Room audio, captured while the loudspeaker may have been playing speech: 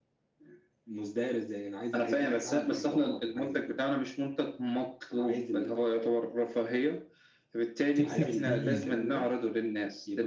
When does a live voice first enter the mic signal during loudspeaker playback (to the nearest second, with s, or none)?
8 s